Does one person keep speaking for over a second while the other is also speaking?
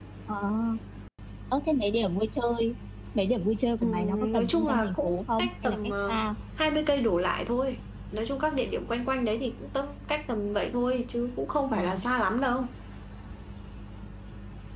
Yes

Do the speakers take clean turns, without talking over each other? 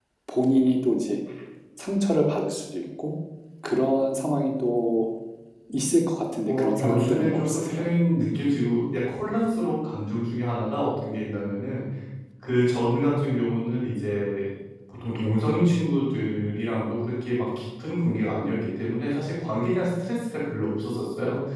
No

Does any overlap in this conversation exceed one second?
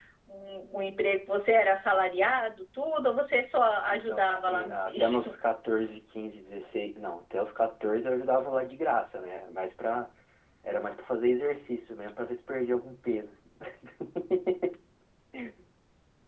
Yes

